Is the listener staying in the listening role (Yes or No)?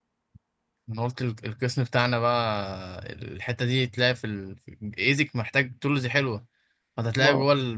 Yes